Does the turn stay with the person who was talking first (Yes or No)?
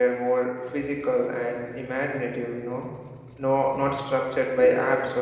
Yes